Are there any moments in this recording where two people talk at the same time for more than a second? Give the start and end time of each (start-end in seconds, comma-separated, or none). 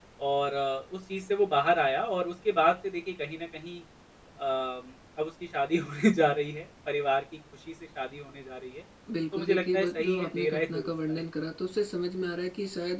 9.3-11.2